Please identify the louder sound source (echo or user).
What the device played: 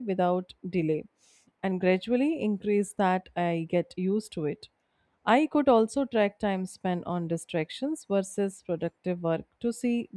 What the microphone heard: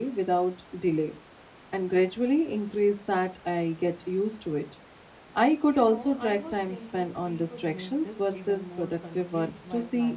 echo